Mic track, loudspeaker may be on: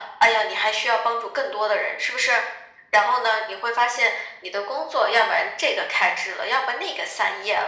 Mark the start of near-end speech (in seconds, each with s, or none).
none